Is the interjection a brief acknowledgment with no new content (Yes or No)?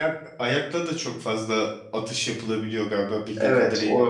No